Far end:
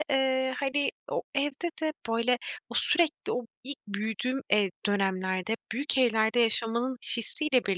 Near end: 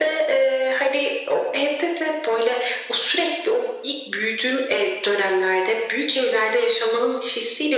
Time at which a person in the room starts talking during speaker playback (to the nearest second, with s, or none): none